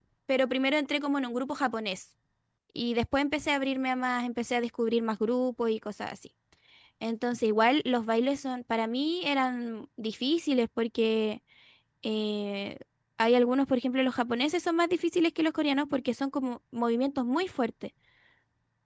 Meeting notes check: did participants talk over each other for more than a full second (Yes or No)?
No